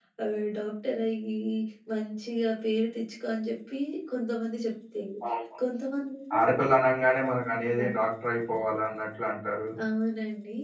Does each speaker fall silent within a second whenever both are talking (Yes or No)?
Yes